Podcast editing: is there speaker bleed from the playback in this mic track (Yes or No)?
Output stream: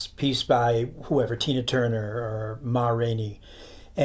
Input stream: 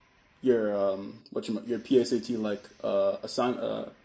No